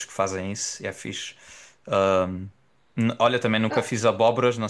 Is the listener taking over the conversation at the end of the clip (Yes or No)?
No